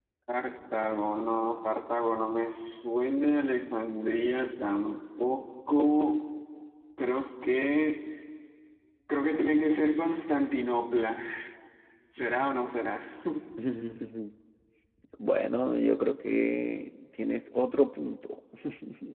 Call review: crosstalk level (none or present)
none